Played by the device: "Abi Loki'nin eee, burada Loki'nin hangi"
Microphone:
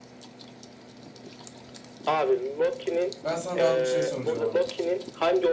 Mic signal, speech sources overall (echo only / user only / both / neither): both